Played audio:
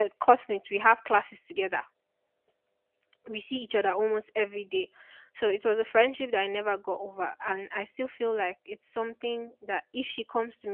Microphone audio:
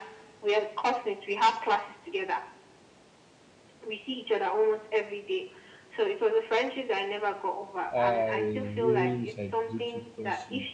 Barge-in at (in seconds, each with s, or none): 7.9 s